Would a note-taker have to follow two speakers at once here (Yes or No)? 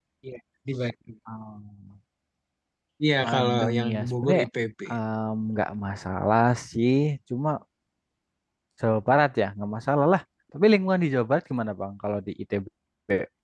Yes